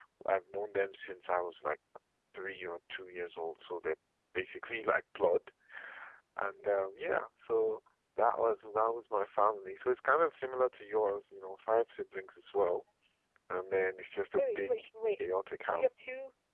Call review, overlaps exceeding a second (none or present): none